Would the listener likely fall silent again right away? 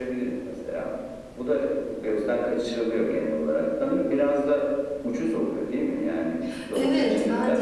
No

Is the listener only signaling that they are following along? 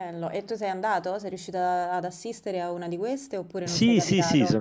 No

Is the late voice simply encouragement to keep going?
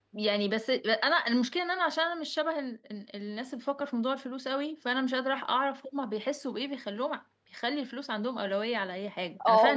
No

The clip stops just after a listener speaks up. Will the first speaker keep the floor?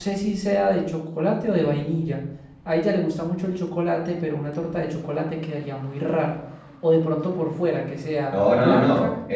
No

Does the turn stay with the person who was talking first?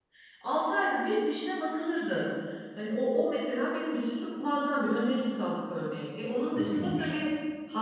Yes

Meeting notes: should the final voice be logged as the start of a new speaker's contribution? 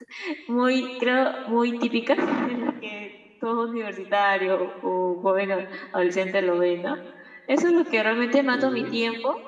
No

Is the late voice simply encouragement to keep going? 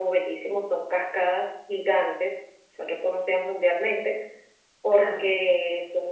Yes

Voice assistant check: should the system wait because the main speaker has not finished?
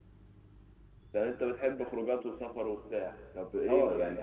No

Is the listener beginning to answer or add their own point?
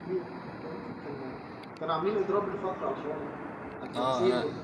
Yes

